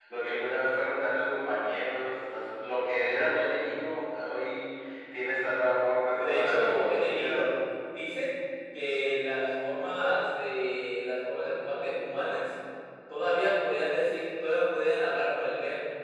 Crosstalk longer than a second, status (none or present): present